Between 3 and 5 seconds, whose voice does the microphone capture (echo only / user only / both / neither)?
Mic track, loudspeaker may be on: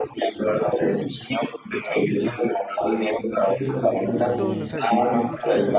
both